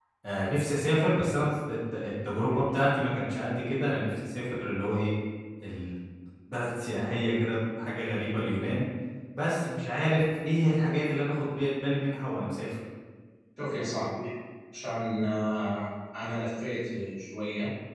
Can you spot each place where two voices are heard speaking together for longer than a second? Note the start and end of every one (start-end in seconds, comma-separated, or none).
none